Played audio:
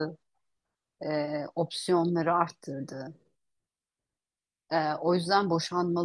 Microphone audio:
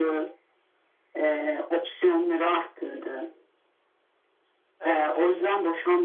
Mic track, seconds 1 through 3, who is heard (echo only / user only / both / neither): echo only